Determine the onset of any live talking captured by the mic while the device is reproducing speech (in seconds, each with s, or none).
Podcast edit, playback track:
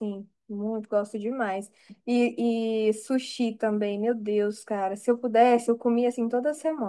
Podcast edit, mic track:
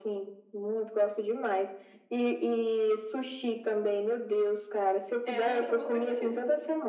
5.2 s